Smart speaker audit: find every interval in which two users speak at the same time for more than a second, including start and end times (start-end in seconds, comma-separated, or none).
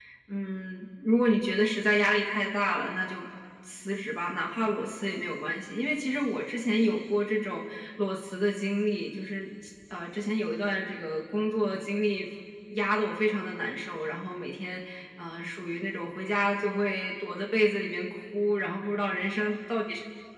none